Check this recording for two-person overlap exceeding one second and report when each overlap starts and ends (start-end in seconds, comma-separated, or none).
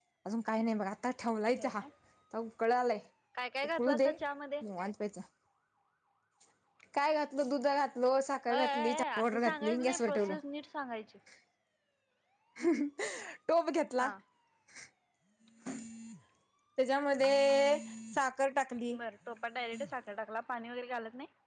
8.5-10.3